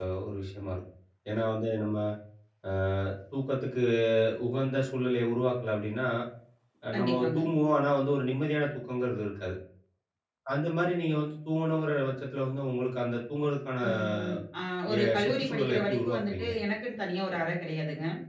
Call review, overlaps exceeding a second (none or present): present